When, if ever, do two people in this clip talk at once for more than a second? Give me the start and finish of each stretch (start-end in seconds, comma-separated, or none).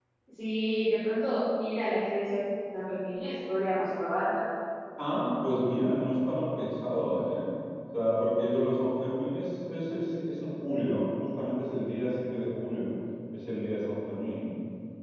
none